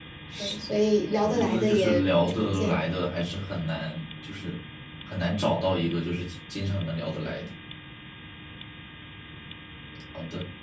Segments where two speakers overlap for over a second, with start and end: 1.2-2.8

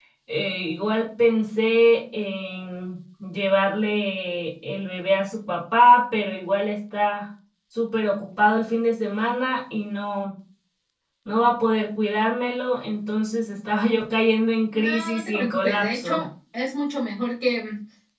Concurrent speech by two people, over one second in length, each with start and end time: 14.7-16.2

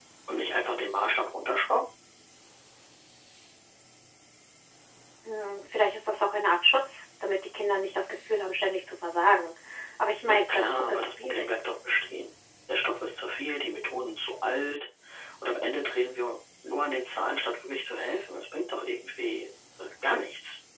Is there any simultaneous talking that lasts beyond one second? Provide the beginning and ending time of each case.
10.3-11.5

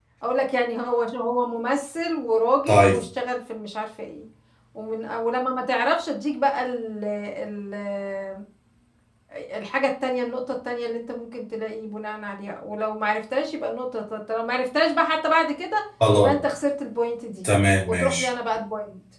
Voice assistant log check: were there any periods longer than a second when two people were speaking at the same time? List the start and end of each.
none

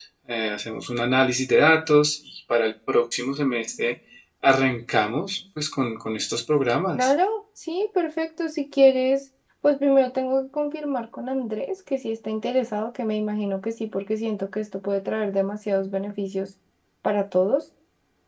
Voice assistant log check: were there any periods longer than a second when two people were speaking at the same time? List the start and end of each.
none

